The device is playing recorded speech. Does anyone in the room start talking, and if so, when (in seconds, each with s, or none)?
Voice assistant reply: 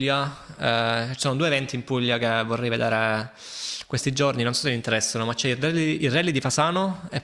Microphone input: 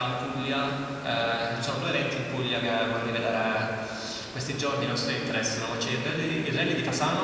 none